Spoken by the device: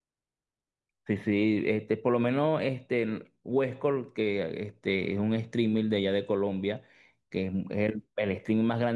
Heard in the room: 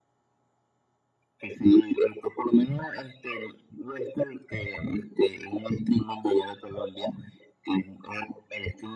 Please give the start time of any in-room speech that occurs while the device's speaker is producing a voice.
none

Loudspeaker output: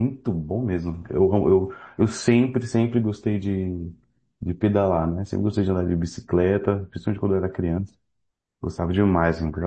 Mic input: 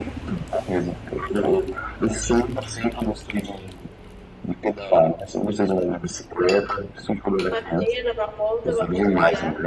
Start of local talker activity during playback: 7 s

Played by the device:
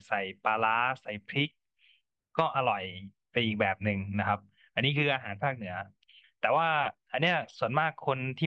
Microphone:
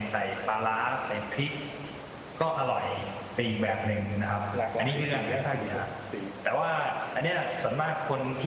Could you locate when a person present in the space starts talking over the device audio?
5 s

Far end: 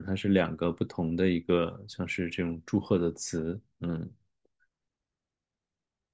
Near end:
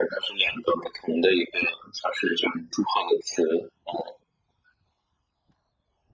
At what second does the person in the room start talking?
none

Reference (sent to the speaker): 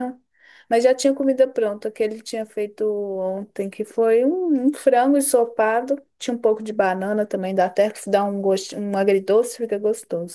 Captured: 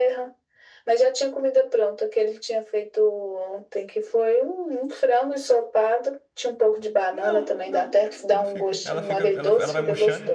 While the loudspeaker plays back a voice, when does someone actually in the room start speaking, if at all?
7 s

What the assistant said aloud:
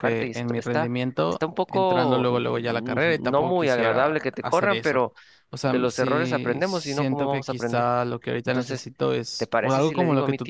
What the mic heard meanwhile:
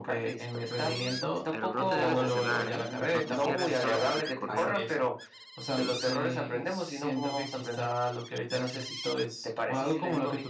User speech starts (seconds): 1 s

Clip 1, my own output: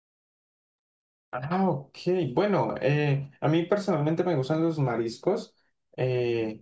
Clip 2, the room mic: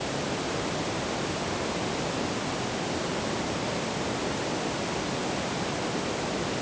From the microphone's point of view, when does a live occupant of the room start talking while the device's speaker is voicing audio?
none

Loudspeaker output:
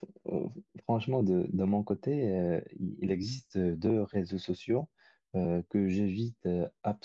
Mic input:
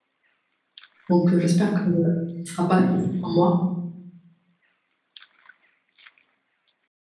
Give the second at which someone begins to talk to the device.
1 s

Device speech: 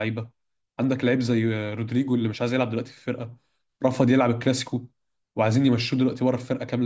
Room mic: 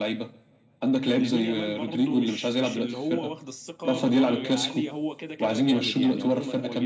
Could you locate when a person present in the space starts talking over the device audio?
1 s

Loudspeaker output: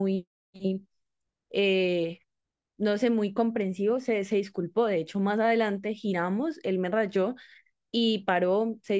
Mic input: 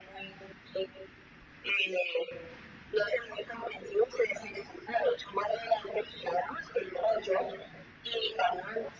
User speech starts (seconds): none

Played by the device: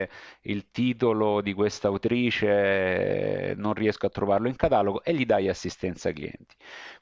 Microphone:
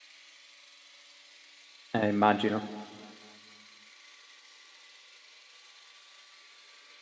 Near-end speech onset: 2 s

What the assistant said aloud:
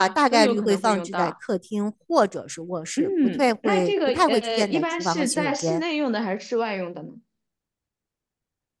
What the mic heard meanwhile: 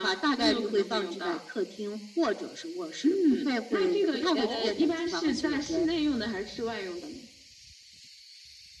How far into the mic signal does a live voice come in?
4 s

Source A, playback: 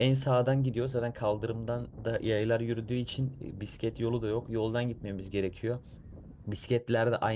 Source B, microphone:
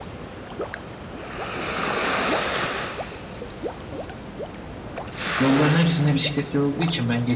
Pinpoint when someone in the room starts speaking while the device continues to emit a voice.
5 s

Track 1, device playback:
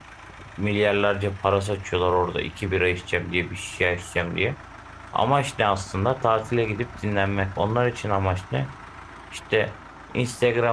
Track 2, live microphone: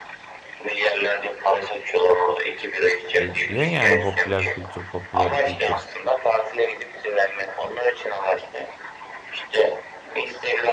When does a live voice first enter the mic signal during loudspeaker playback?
3 s

